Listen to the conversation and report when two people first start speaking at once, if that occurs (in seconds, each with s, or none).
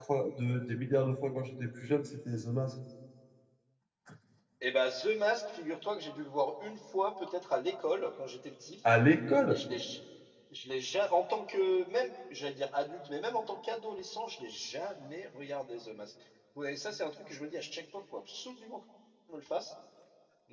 none